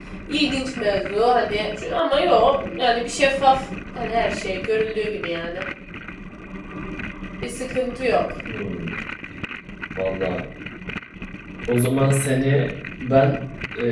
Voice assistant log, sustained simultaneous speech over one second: none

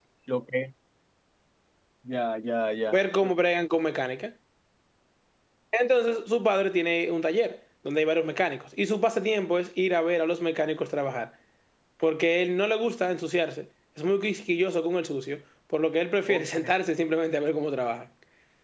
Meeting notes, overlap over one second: none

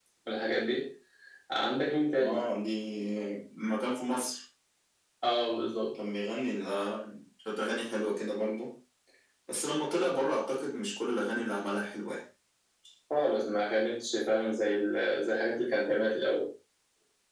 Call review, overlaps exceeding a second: none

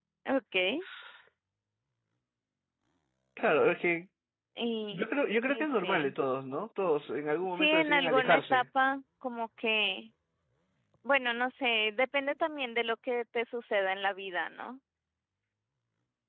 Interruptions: present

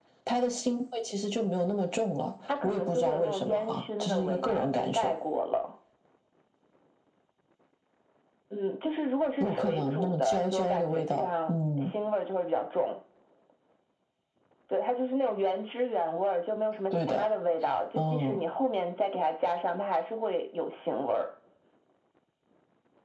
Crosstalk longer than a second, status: present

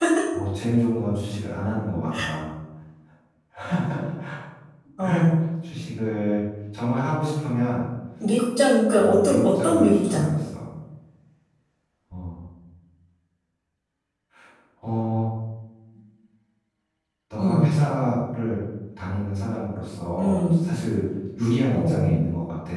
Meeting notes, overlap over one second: present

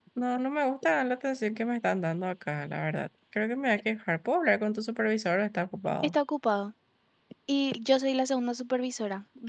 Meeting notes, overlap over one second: none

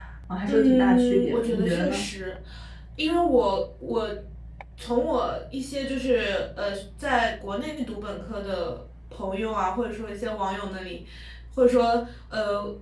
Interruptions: present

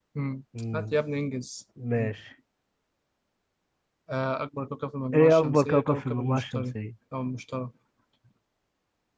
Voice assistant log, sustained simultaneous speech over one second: present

